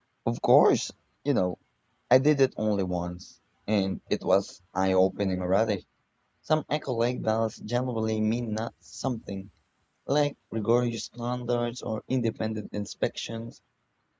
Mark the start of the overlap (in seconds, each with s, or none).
none